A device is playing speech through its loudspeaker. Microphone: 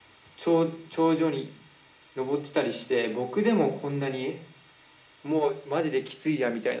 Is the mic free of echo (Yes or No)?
No